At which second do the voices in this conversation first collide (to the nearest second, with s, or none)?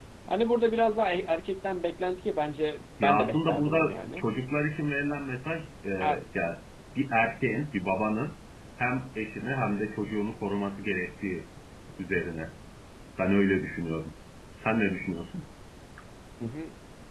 3 s